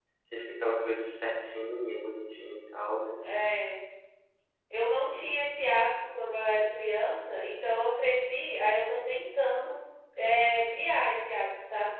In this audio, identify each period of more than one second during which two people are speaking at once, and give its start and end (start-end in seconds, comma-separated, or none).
none